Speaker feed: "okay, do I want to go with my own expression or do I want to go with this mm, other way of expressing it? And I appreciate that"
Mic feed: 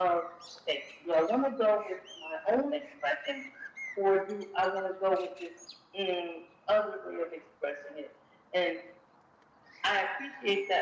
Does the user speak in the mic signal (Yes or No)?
No